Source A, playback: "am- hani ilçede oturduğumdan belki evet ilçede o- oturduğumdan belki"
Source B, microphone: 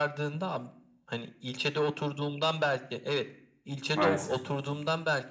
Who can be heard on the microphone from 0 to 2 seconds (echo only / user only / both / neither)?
echo only